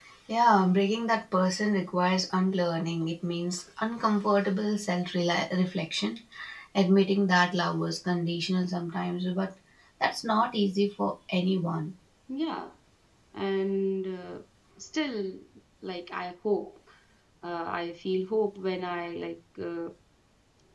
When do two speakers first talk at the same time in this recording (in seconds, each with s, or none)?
none